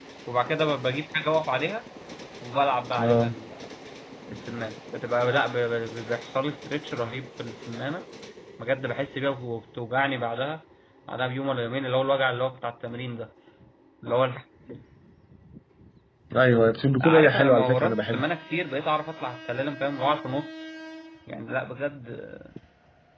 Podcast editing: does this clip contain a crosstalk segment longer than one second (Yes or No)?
Yes